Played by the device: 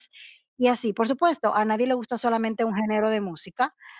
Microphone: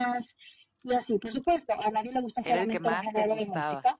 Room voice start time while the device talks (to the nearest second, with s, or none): 2 s